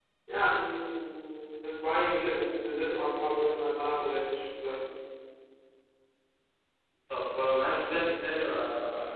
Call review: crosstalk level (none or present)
none